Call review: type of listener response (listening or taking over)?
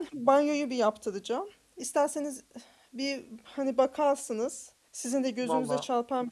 listening